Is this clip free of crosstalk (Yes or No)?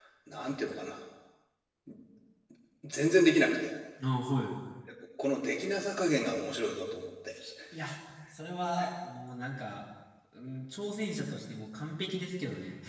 Yes